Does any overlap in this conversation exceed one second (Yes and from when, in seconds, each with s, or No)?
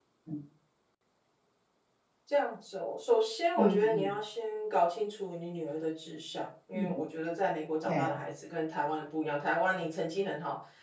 No